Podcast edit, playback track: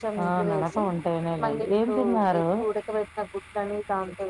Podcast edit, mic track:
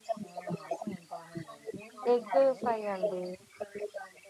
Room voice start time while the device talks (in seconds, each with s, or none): 2.1 s